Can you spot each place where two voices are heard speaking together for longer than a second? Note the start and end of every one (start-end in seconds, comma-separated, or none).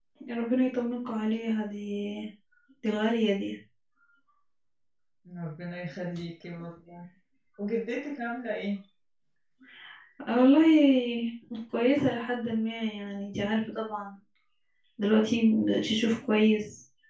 none